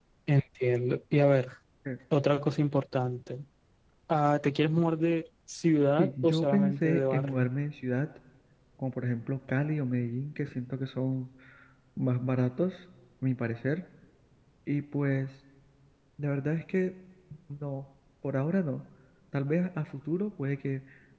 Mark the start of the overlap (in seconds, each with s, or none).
6.0 s